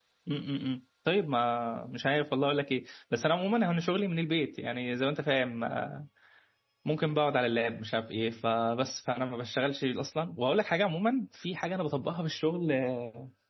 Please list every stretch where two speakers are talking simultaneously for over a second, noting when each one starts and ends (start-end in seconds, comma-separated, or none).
none